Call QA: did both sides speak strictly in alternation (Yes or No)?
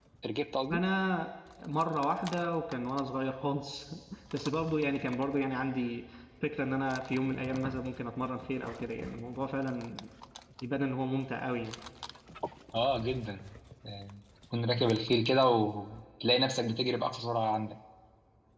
Yes